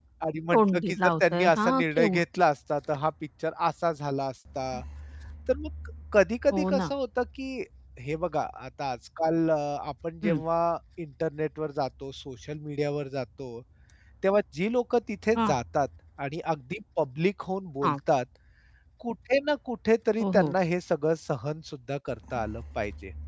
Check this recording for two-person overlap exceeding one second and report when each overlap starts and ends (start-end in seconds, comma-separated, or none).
0.5-2.2